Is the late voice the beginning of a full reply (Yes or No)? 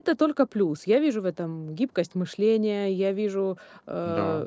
No